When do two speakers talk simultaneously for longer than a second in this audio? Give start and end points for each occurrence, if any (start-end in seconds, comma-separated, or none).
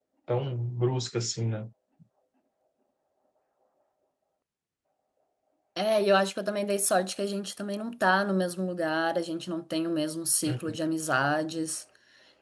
none